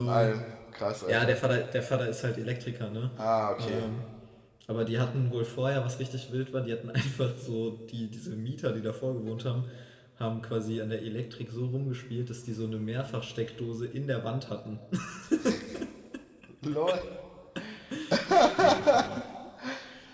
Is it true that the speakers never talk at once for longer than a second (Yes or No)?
Yes